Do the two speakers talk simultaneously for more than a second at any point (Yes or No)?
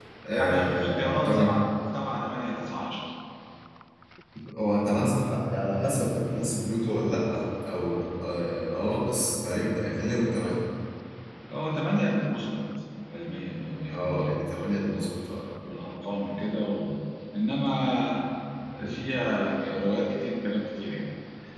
Yes